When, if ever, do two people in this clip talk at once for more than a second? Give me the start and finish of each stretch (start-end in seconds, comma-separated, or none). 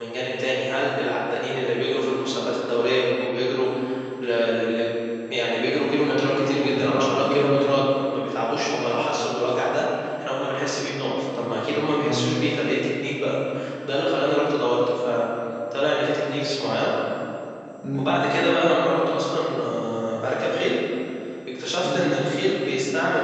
6.0-7.7